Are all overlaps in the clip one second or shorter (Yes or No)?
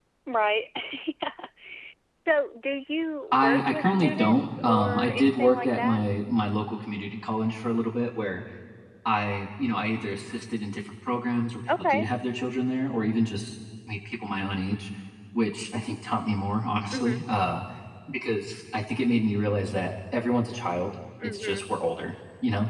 No